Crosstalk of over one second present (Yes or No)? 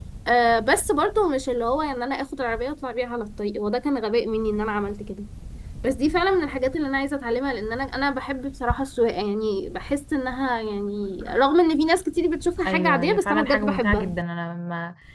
Yes